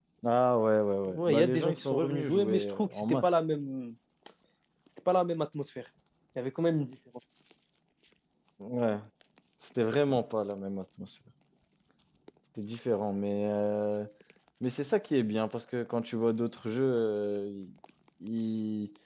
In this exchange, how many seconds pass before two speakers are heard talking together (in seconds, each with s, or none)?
1.0 s